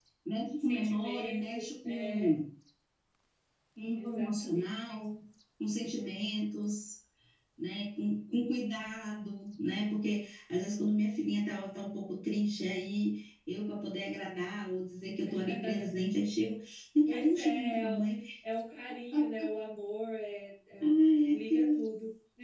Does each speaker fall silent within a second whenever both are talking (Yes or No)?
No